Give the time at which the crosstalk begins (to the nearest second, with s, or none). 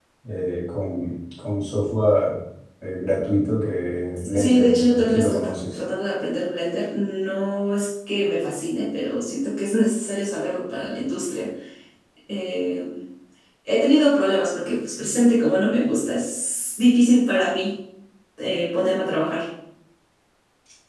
4 s